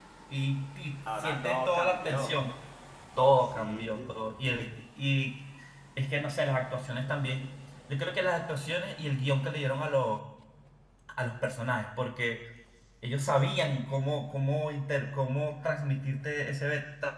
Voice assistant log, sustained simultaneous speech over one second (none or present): present